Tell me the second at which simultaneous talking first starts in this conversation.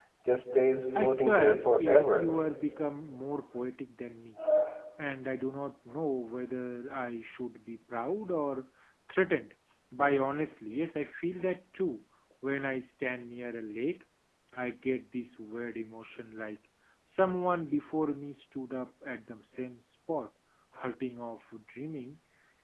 1 s

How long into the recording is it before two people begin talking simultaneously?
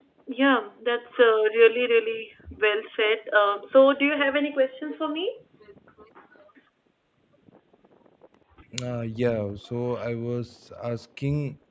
none

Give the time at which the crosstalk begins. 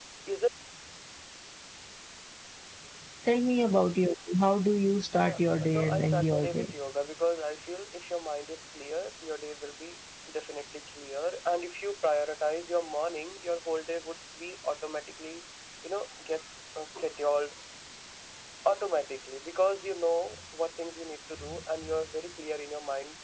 5 s

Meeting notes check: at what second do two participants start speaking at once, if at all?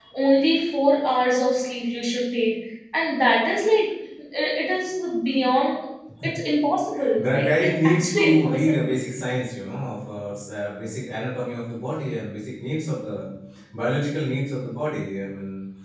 7 s

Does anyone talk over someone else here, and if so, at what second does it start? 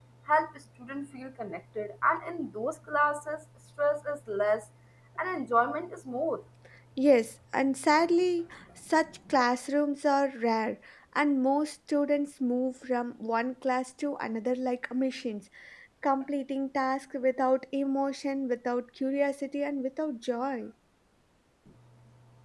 none

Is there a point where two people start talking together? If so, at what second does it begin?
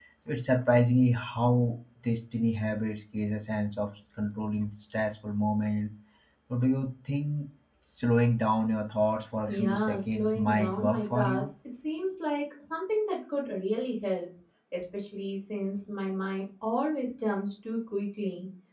9 s

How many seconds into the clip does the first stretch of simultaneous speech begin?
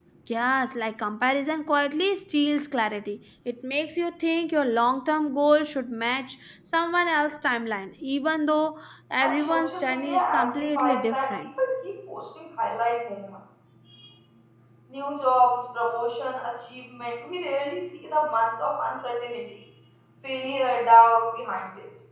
9 s

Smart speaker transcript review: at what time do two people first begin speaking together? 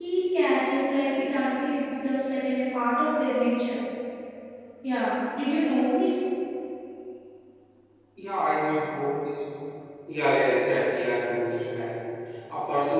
none

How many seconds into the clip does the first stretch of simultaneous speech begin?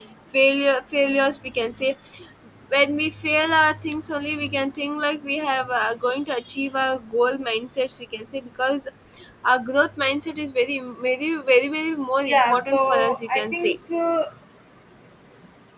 12 s

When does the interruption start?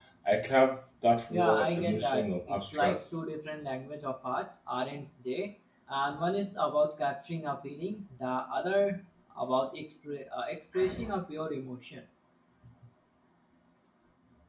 1 s

